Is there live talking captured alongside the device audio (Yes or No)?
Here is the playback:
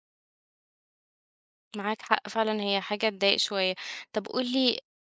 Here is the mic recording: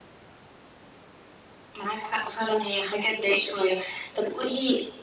No